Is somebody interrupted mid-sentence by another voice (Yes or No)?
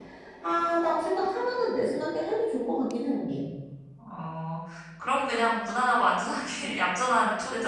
No